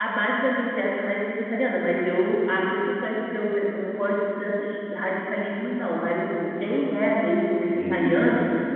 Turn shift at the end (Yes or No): No